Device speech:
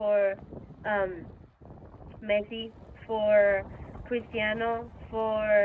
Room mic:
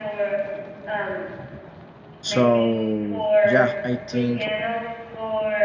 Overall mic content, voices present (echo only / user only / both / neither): both